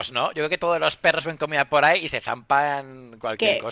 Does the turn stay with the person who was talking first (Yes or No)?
No